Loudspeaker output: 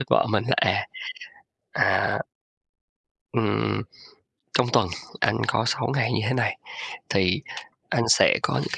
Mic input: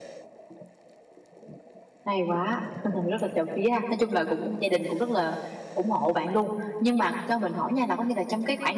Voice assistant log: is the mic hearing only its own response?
No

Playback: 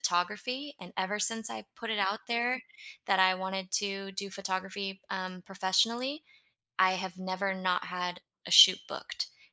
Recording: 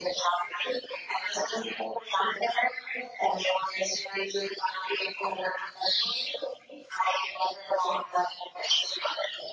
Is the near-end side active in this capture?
No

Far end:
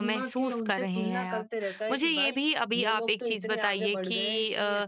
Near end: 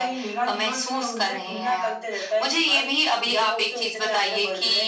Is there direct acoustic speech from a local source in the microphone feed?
No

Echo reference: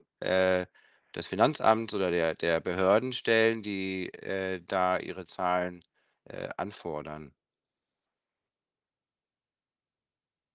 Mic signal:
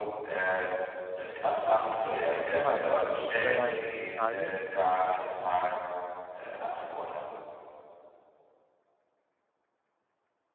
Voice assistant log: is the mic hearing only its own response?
No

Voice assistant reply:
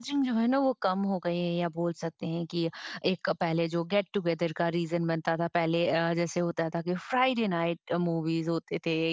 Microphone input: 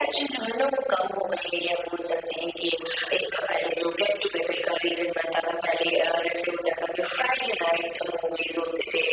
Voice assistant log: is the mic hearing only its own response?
Yes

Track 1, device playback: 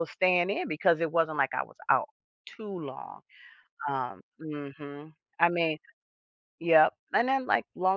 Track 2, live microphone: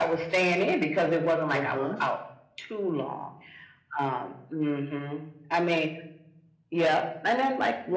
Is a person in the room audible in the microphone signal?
Yes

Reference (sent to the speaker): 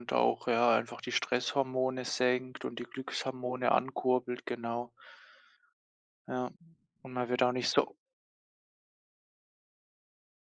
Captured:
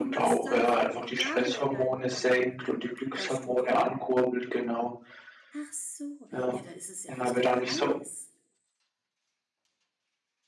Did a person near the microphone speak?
Yes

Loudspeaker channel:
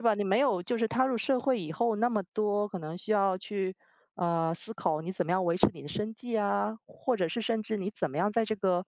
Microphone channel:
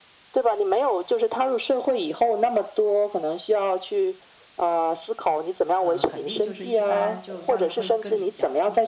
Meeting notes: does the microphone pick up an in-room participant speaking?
Yes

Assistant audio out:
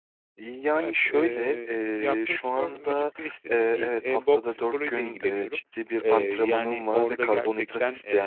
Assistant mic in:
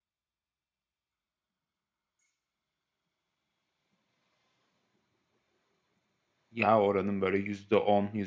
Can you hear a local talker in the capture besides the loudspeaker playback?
Yes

